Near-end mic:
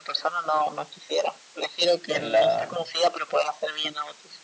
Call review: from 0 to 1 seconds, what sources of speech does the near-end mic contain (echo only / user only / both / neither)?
echo only